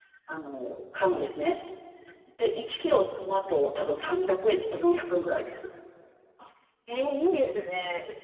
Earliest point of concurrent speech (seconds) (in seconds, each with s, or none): none